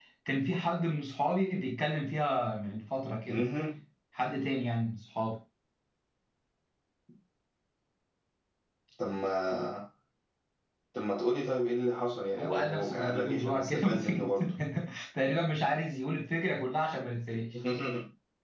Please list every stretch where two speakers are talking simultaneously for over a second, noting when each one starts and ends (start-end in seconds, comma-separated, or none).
12.4-14.4